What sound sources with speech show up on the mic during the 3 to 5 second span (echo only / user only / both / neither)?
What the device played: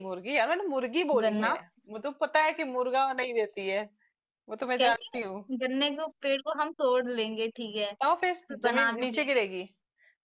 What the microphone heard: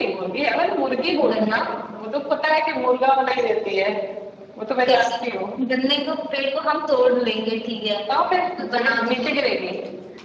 echo only